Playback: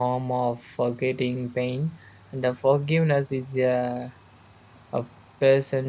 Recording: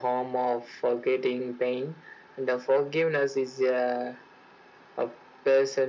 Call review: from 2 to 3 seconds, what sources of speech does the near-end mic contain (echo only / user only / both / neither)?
echo only